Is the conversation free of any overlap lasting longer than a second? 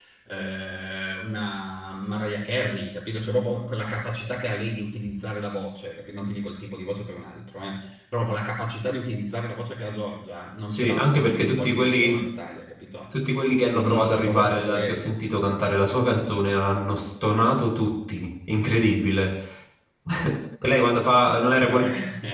No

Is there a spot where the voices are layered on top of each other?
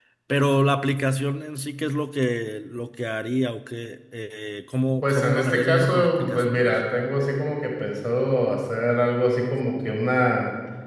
Yes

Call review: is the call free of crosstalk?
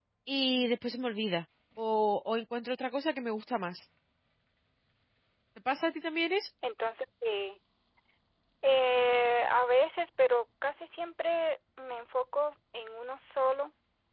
Yes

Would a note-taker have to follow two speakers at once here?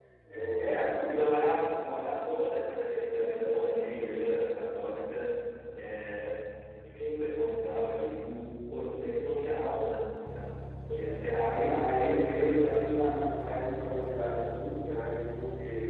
Yes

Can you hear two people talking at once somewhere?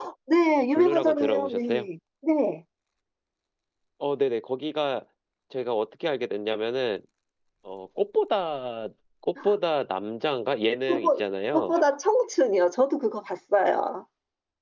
Yes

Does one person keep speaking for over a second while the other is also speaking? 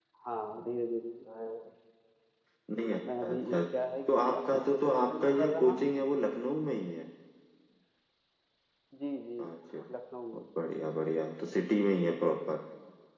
Yes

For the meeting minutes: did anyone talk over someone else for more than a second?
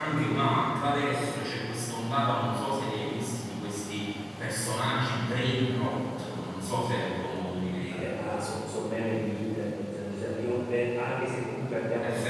No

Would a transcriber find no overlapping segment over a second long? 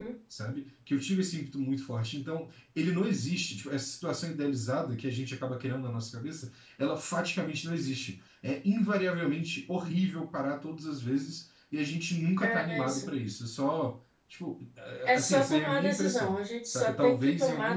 No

